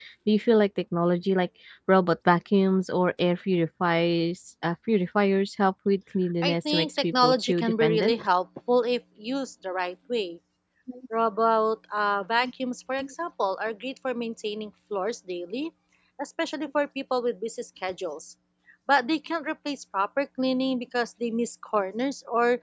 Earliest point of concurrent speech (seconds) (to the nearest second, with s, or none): 6 s